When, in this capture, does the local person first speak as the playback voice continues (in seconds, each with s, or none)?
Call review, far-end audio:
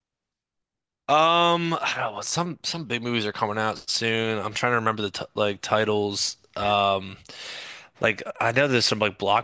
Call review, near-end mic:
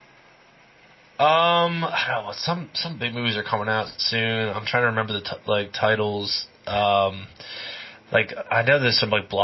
none